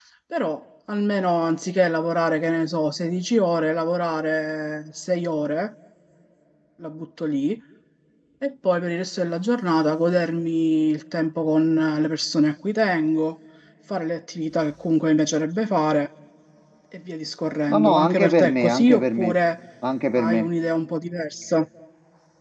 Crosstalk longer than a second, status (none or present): present